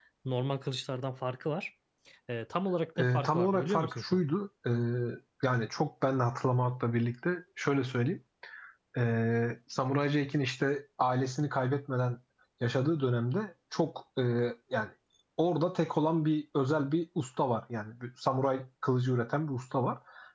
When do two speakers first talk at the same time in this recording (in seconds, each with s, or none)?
3.0 s